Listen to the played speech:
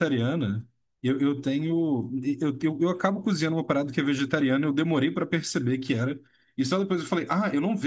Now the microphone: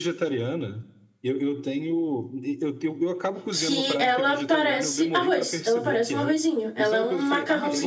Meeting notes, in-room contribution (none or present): present